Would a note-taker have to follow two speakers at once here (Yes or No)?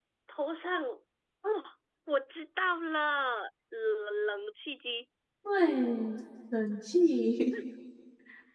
No